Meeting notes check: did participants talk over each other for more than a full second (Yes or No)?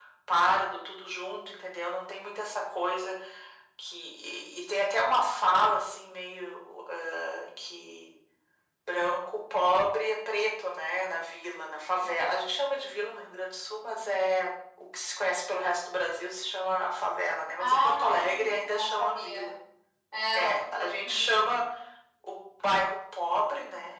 Yes